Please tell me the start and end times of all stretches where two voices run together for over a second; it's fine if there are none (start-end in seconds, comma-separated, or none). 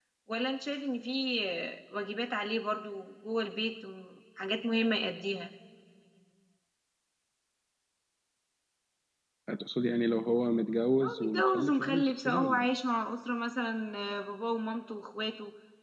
11.0-12.8